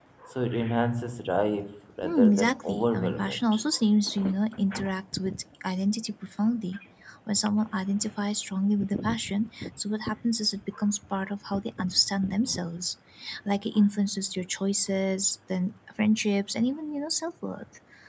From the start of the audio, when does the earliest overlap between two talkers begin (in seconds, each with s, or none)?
2.0 s